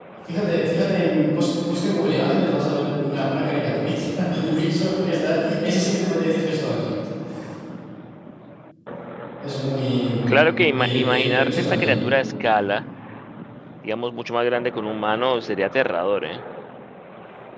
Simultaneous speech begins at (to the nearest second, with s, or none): 10 s